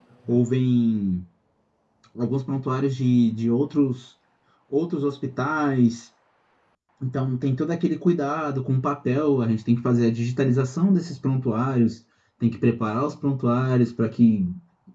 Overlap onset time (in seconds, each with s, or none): none